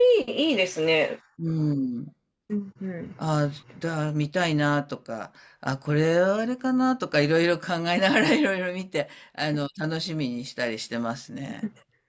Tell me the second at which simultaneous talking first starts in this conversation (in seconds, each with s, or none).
none